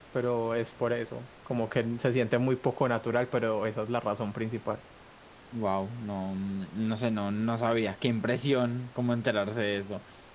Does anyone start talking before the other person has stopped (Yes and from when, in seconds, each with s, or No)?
No